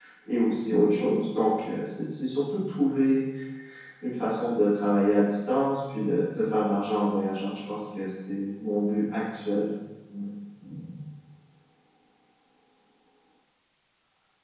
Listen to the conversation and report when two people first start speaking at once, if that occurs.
none

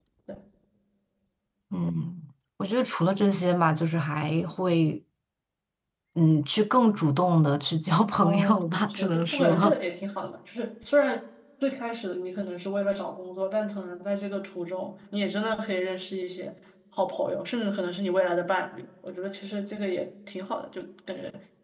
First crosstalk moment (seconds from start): 8 s

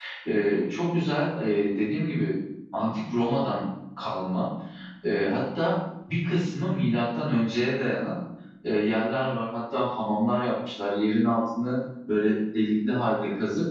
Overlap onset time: none

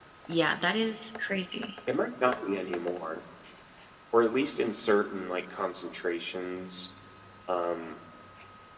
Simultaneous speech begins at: none

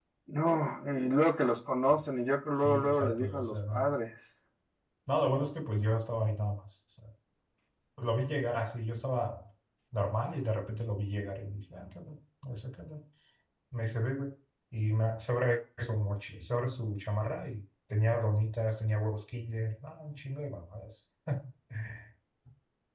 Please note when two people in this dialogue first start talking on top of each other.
3 s

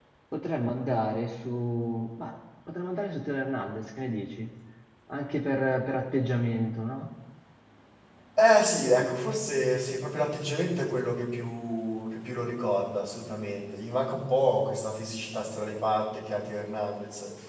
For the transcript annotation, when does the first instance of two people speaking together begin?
none

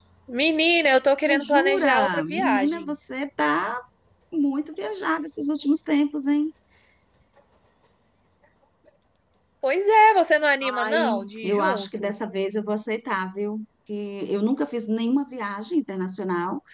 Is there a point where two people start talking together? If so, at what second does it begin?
1 s

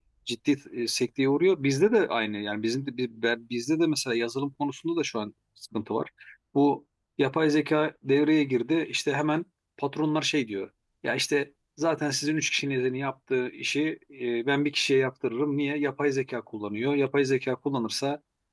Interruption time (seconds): none

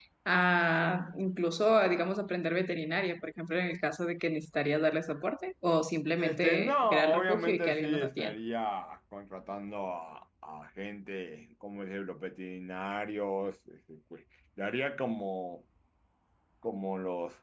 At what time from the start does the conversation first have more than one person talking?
6 s

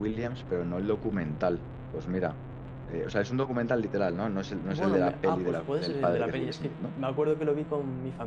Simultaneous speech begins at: 5 s

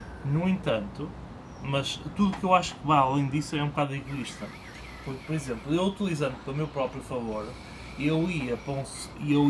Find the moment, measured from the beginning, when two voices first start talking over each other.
none

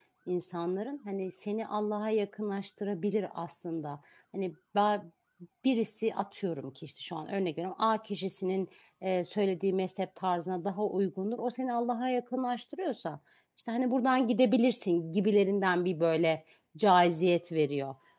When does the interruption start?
none

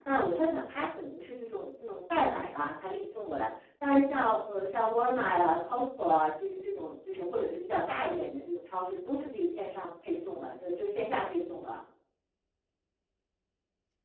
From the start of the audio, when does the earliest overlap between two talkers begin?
none

